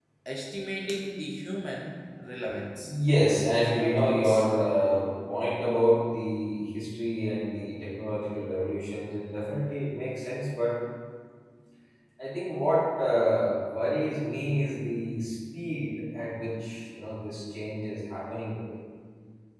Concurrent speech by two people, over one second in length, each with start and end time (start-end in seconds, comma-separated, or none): 2.8-4.5